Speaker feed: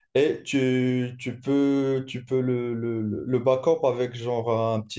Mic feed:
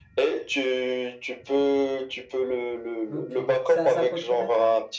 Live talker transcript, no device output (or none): ok. Ça, ça coûte combien ça?